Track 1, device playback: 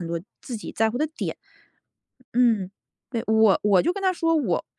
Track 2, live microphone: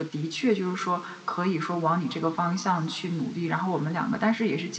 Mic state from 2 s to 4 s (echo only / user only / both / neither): user only